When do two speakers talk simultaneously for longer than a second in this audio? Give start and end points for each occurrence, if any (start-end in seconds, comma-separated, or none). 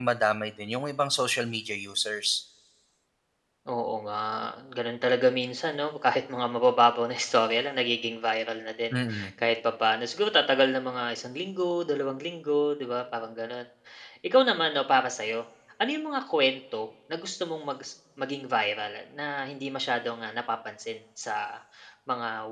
none